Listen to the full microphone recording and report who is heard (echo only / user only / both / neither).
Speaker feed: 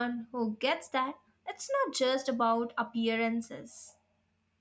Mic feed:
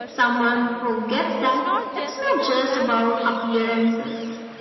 both